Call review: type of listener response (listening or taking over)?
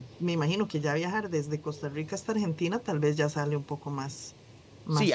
taking over